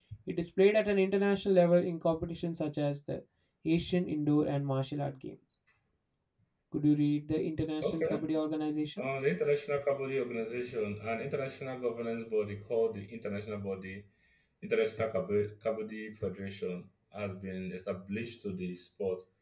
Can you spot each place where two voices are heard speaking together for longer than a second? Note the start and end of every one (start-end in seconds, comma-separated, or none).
none